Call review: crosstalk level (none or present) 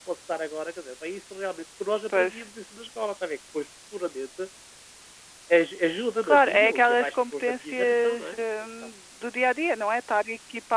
present